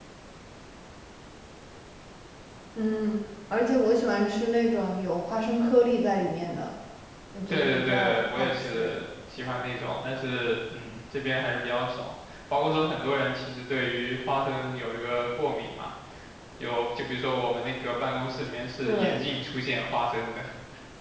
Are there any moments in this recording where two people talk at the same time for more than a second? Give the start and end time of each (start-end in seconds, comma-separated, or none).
7.5-8.9